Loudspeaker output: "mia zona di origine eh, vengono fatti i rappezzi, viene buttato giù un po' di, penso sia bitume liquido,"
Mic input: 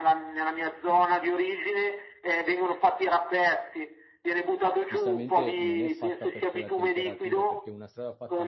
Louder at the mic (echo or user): echo